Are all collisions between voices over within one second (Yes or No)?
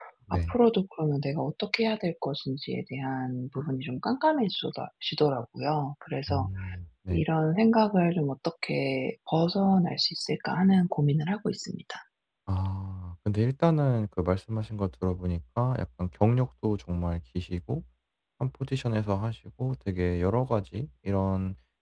Yes